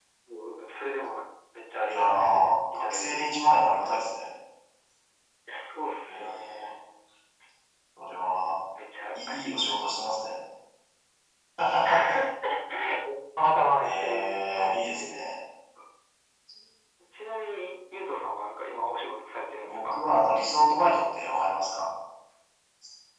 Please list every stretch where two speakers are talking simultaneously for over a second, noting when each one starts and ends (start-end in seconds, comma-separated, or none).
1.9-3.3, 13.8-15.2